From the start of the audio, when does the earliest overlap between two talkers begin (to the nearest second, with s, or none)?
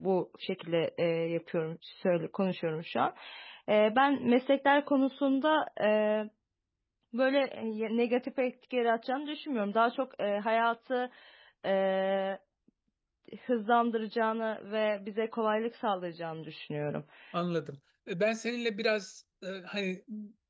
none